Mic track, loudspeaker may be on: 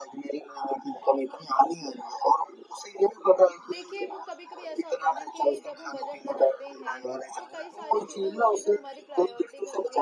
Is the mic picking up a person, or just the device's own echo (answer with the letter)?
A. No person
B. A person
B